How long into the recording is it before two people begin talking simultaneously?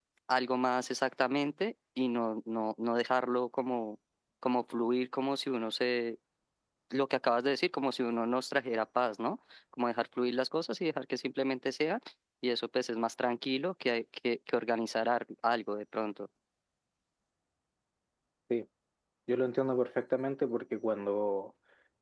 none

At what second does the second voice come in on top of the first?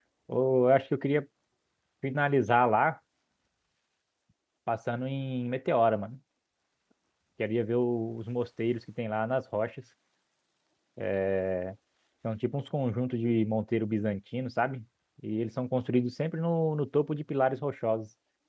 none

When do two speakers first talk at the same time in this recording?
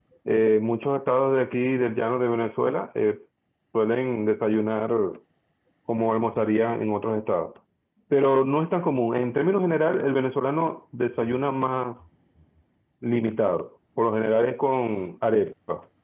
none

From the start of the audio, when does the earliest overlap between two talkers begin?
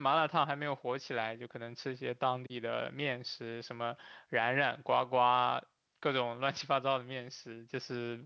none

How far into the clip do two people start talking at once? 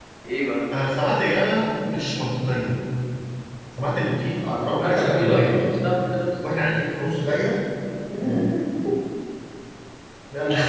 4.4 s

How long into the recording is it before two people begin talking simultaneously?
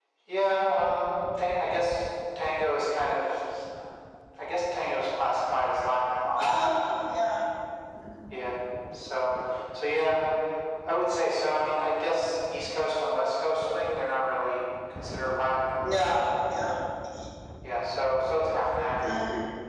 none

